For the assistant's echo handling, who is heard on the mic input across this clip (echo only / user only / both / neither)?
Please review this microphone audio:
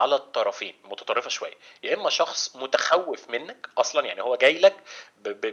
echo only